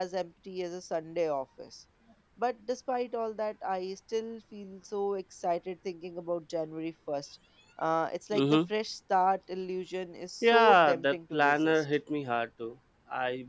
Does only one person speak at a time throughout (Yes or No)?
No